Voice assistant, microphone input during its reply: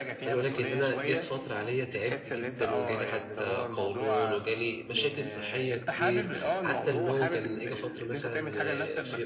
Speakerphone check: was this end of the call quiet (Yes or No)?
No